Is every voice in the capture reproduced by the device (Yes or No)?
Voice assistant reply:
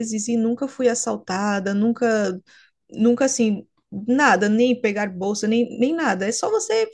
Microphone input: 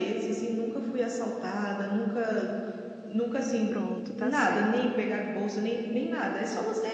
No